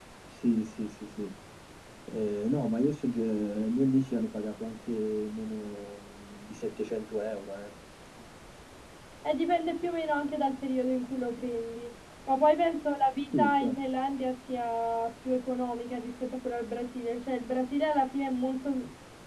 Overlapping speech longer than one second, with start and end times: none

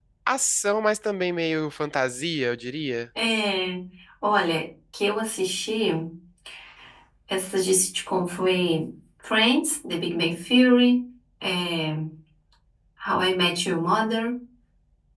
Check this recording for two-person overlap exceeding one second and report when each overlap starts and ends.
none

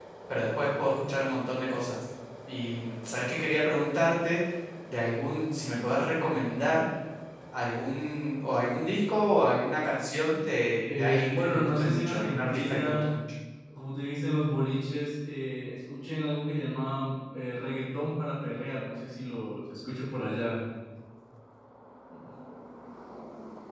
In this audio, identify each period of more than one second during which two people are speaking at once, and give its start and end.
11.0-13.0

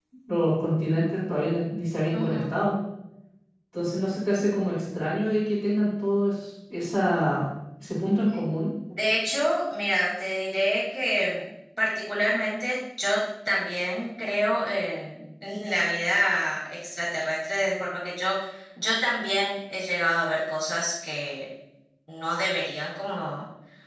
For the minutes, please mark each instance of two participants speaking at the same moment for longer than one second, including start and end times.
none

